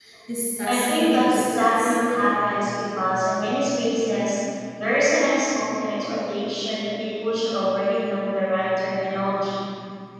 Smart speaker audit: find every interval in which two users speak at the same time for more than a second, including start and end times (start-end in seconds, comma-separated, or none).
0.7-1.9